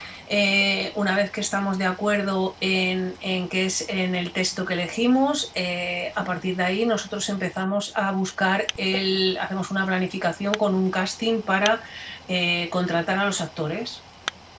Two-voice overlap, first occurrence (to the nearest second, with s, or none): none